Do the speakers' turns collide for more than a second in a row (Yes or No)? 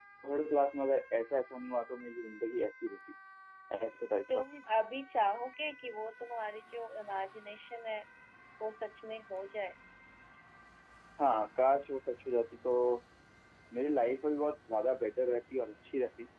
No